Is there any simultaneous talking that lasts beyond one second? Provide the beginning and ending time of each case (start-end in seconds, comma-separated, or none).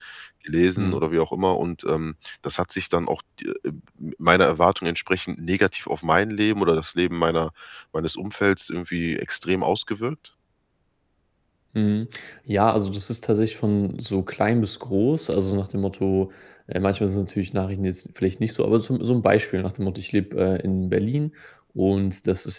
none